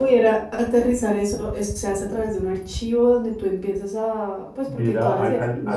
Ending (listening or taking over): taking over